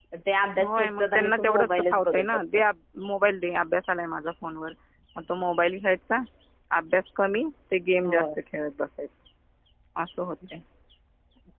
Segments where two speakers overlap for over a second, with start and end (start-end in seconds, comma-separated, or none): 0.6-2.6